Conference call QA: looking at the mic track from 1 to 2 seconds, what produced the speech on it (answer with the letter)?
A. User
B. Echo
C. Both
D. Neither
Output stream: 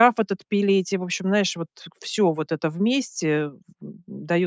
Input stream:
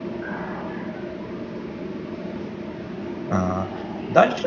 D